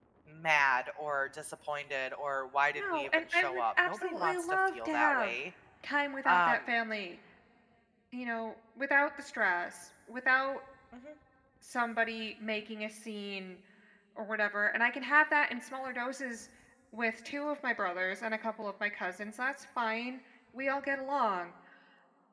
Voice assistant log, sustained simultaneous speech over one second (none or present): present